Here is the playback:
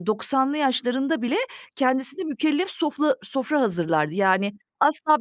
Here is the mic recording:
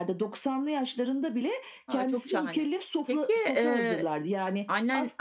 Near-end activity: present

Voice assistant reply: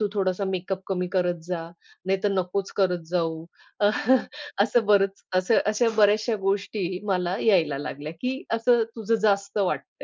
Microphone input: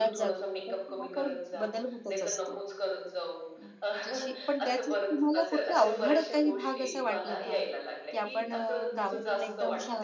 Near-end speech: present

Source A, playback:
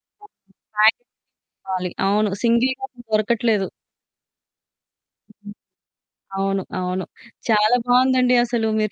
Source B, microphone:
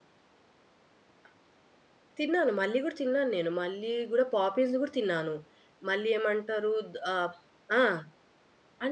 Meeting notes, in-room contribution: present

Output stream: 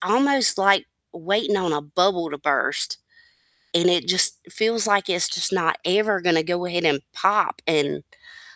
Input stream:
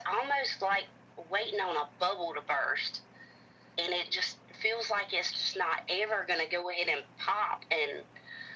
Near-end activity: none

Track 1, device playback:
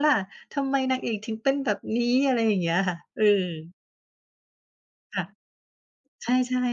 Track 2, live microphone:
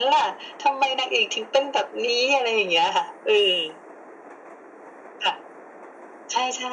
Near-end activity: none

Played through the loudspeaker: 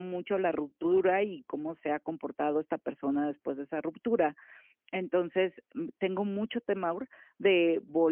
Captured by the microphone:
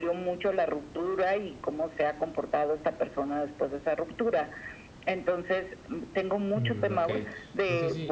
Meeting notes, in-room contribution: present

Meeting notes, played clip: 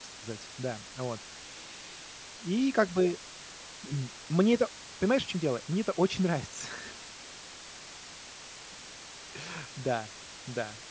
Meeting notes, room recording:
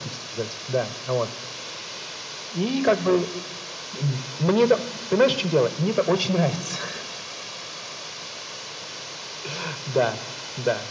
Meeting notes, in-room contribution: none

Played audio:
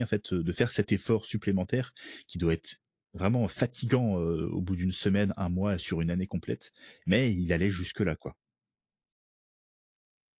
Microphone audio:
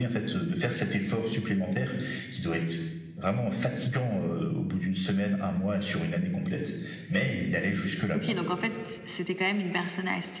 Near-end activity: present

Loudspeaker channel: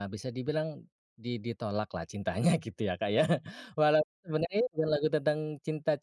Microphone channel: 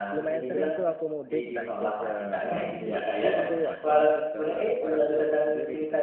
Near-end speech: present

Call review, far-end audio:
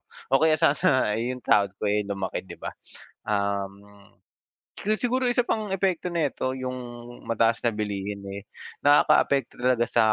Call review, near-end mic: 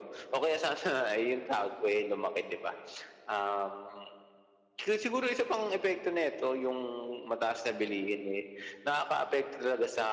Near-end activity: none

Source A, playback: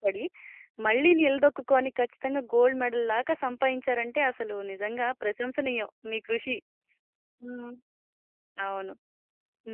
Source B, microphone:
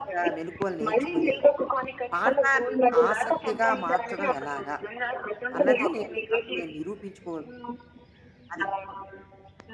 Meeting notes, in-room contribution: present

